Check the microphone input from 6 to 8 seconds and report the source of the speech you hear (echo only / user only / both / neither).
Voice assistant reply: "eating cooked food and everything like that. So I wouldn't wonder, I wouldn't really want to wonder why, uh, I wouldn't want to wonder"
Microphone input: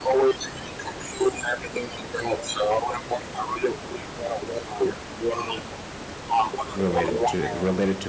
both